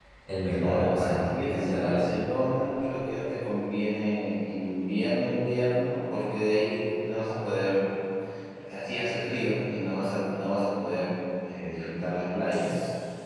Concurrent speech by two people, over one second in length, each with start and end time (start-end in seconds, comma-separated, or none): 0.5-2.0